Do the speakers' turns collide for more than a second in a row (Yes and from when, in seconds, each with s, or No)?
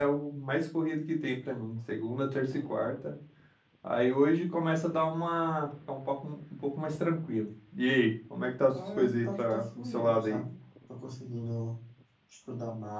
Yes, from 8.7 s